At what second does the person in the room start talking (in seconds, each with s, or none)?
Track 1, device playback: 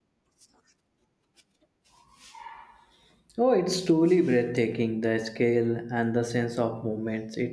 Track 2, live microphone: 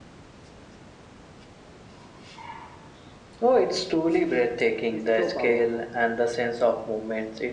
4.9 s